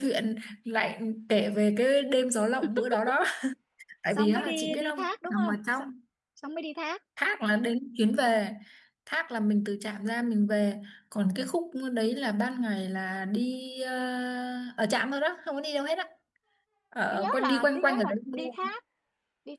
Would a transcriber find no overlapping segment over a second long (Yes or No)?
No